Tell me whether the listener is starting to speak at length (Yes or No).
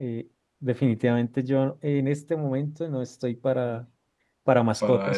No